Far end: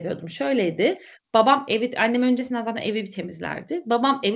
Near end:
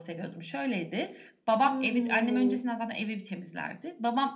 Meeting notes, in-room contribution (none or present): present